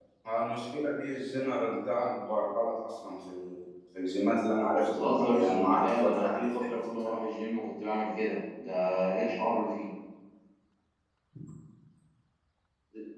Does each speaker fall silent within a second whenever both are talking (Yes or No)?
No